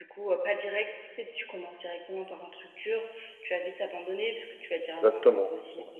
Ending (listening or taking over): taking over